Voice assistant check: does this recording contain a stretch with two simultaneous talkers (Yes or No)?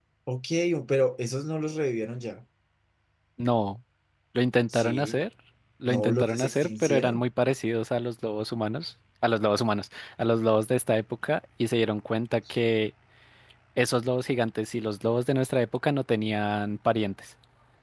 Yes